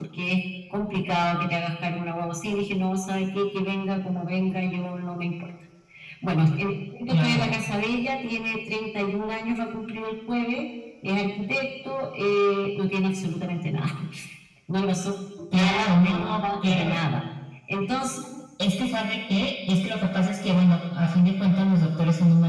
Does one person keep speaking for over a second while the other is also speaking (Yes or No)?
Yes